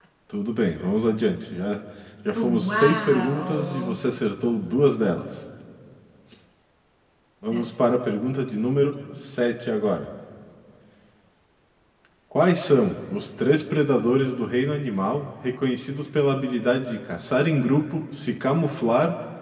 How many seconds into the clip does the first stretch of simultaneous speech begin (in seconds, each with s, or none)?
2.4 s